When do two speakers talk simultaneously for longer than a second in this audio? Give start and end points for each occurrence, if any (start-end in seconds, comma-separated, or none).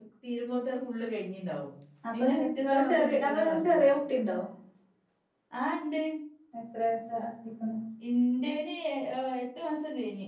2.1-3.8